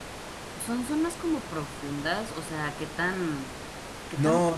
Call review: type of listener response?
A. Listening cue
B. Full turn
B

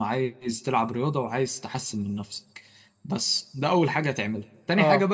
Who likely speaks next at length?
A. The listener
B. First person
B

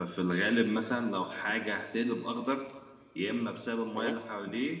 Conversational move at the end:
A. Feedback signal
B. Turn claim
A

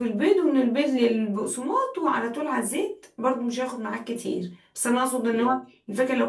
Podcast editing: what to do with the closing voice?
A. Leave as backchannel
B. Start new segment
A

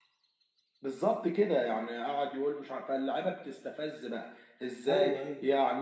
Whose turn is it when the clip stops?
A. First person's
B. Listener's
A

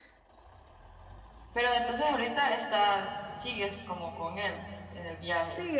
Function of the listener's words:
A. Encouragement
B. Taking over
B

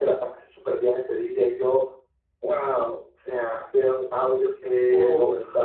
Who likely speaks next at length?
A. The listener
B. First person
B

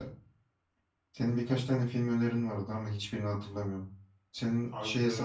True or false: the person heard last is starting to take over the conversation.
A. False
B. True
A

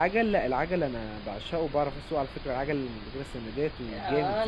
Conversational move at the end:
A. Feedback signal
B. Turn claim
B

